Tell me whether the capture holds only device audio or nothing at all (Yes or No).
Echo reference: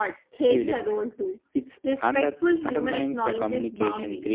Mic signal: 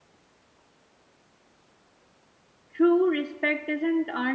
No